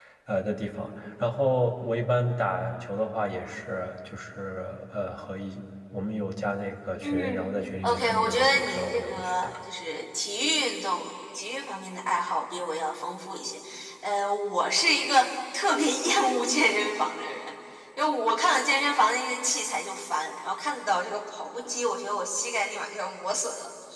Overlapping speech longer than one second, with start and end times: 7.8-9.6

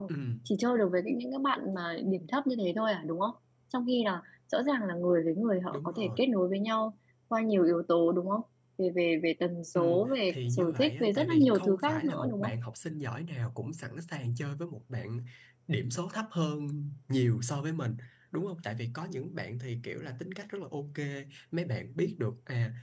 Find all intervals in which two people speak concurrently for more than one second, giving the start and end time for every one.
10.3-12.5

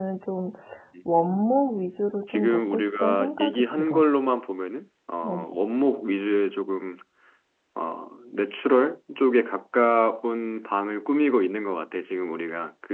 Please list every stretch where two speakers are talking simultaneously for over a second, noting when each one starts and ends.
2.3-4.0

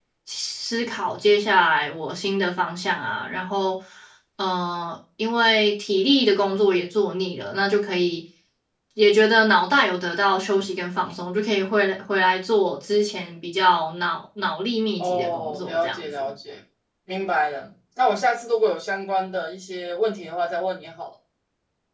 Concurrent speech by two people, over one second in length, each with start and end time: 15.0-16.3

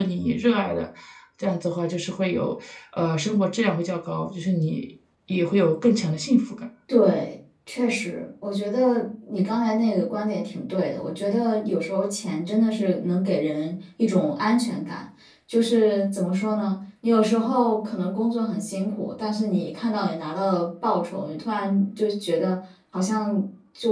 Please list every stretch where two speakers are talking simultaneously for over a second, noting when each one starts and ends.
none

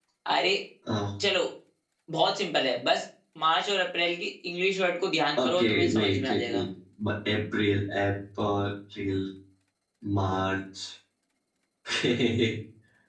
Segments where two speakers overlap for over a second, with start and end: 5.4-6.6

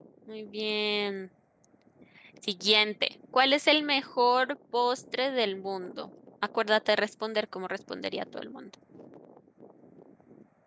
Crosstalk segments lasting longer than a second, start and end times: none

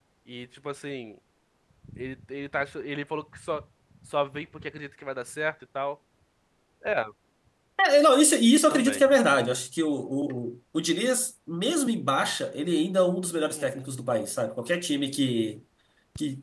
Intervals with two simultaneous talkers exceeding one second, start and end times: none

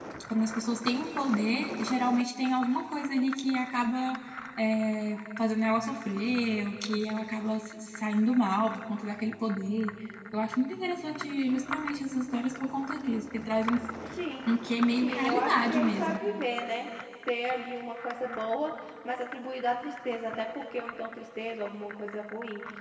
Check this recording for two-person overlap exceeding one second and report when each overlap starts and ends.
15.0-16.2

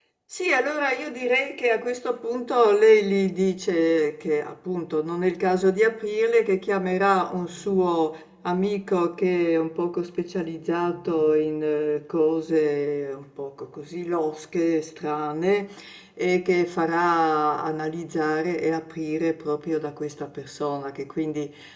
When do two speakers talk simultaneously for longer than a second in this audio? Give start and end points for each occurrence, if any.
none

